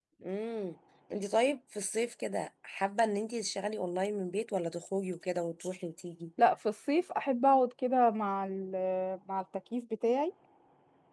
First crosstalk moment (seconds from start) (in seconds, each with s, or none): none